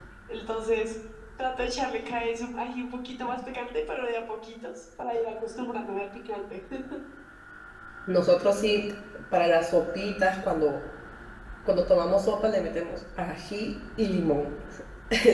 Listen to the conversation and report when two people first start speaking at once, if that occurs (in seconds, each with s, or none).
none